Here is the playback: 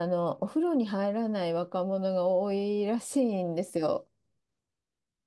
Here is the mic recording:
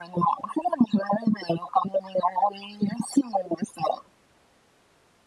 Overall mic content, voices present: echo only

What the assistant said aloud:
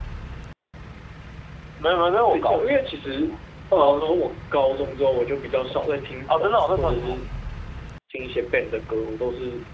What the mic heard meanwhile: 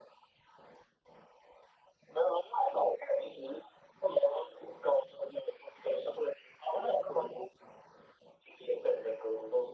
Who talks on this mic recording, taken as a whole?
echo only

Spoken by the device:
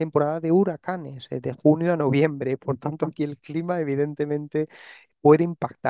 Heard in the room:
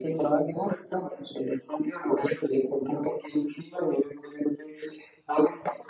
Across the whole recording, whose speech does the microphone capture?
echo only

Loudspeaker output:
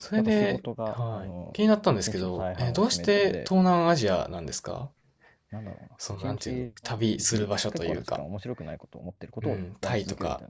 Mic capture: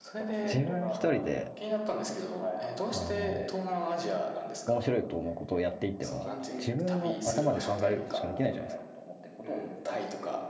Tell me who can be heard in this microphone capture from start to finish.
both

